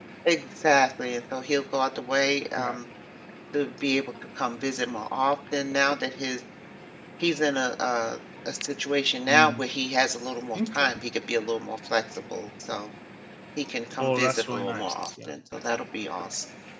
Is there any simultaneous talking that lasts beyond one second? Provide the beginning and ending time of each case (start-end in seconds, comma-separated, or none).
14.0-15.3